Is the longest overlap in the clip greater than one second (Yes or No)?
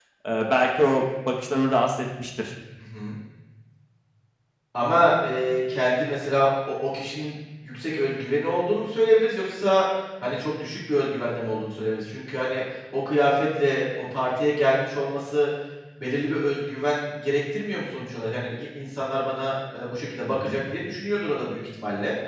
No